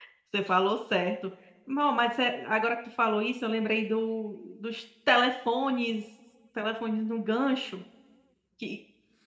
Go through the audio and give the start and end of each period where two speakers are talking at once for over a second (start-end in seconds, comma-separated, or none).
none